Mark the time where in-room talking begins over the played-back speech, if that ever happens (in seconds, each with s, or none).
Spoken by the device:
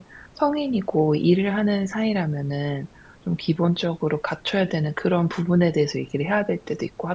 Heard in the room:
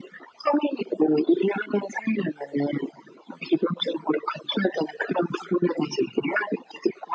none